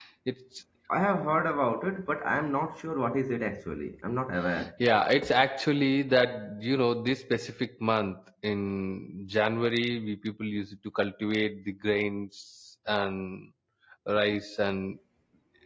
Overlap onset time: none

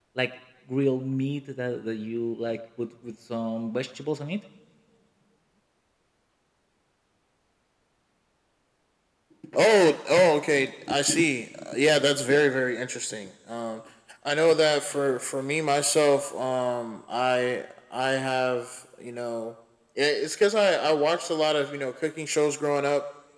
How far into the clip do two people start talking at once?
none

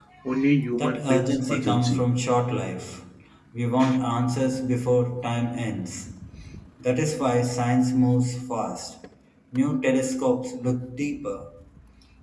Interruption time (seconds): 1 s

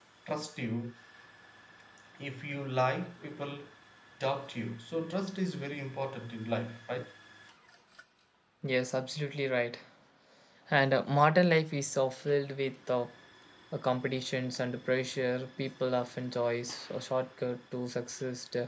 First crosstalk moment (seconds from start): none

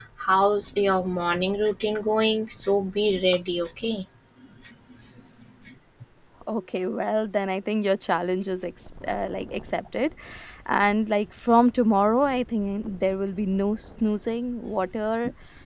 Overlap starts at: none

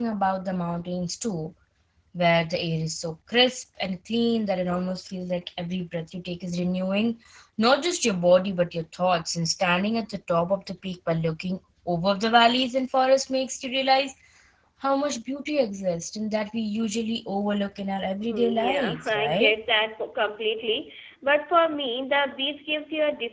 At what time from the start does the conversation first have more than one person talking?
18 s

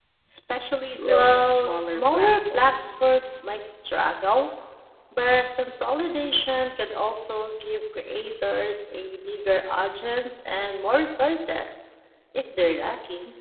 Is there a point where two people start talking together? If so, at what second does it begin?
1 s

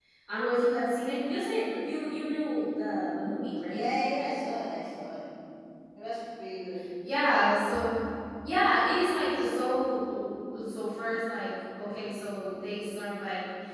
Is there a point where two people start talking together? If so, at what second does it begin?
none

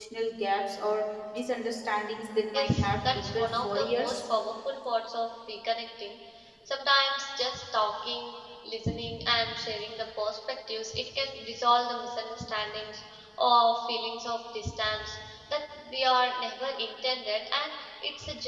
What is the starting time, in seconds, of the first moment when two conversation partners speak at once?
3 s

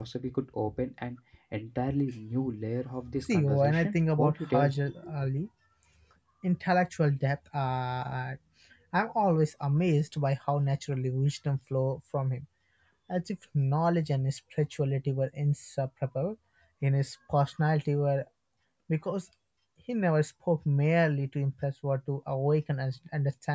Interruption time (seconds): 3 s

